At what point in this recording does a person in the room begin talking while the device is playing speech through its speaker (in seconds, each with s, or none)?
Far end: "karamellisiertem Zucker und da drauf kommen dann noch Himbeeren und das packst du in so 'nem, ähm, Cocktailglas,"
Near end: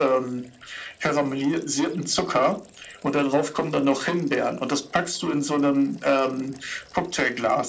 none